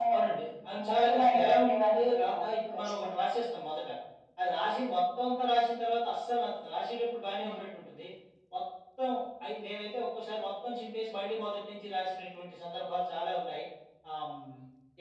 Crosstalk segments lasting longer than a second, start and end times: 0.9-3.3

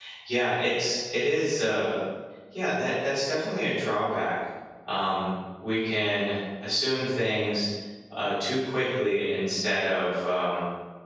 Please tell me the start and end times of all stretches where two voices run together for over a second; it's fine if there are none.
none

